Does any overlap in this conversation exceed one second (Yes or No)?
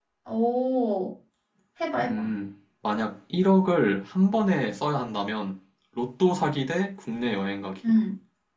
No